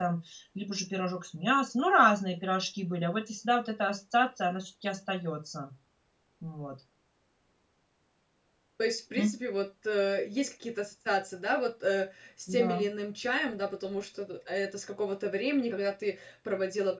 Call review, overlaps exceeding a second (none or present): none